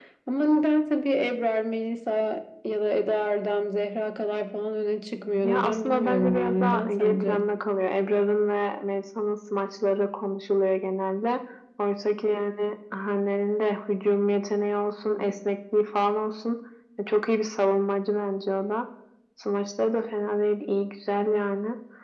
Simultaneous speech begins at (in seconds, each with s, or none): 5.4 s